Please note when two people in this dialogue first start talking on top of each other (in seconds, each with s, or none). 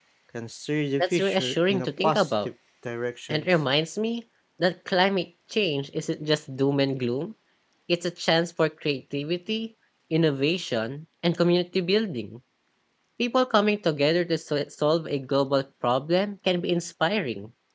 1.0 s